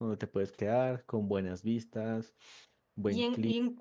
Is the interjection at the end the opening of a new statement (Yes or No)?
Yes